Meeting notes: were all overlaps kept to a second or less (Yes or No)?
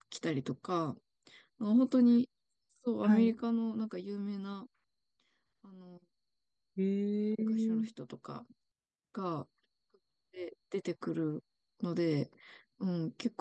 Yes